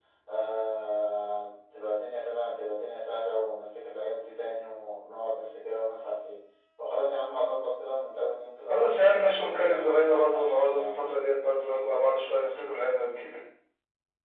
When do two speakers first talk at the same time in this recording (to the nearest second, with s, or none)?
9 s